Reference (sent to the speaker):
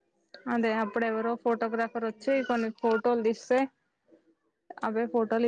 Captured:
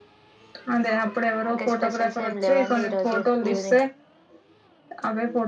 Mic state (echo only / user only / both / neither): both